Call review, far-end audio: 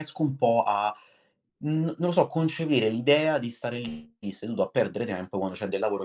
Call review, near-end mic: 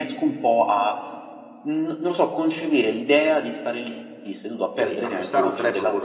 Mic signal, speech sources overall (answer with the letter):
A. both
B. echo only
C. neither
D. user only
A